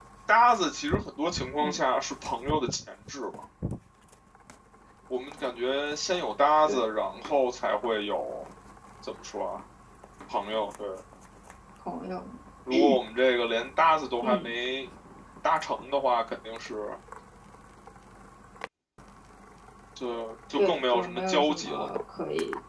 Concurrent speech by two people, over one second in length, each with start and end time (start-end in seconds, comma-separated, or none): 20.6-21.9